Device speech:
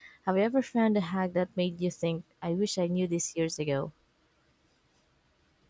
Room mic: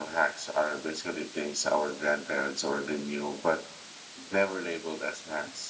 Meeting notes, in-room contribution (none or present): present